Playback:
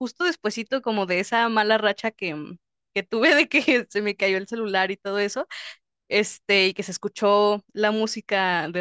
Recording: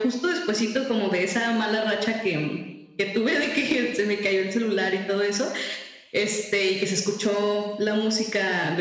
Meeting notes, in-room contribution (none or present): none